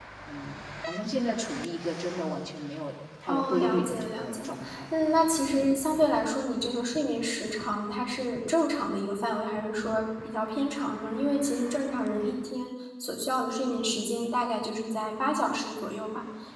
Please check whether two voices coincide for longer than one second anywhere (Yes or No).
Yes